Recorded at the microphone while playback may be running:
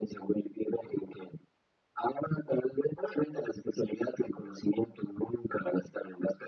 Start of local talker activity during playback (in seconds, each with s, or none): none